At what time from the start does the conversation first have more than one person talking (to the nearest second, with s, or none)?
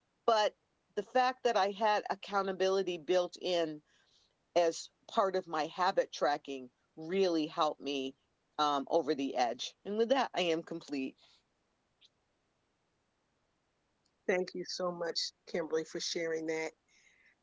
none